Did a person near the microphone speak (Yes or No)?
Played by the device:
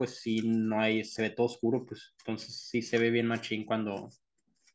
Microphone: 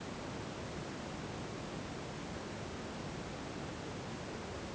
No